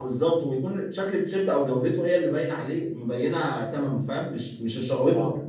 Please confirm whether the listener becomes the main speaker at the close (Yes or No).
Yes